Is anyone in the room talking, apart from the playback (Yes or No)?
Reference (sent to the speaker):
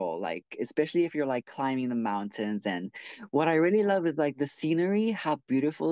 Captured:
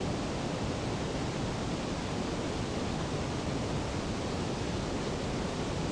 No